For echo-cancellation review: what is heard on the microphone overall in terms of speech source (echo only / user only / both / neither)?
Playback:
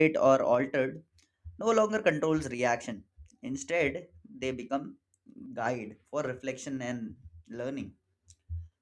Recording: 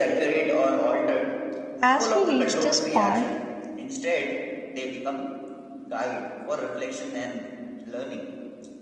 both